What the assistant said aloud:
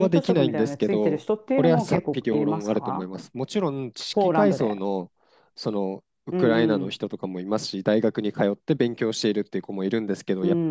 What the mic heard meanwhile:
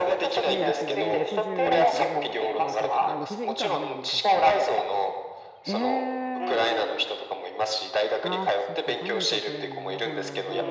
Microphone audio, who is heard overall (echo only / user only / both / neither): both